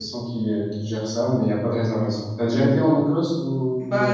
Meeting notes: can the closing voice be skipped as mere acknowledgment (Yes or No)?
No